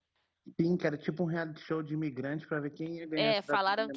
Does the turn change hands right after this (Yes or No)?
Yes